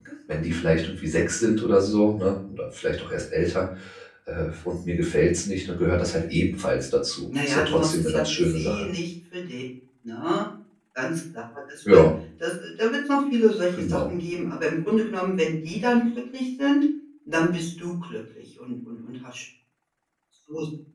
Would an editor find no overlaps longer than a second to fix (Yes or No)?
No